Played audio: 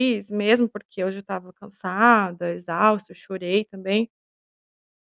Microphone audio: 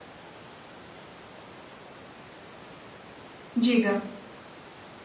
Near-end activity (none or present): present